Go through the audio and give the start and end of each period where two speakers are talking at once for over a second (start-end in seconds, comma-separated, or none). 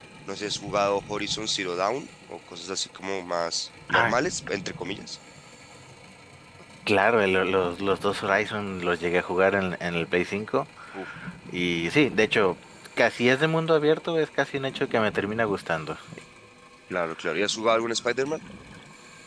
none